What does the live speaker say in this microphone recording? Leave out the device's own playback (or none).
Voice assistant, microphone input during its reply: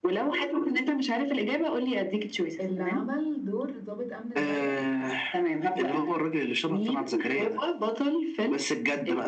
اللي عمل دور ضابط امن الدوله